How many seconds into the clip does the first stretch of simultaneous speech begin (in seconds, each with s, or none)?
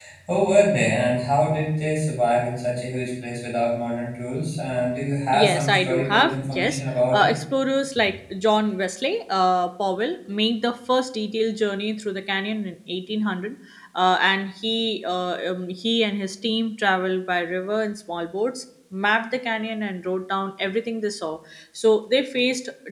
5.3 s